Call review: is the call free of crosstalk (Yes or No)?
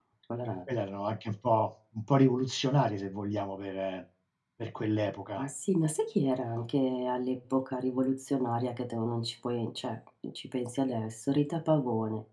Yes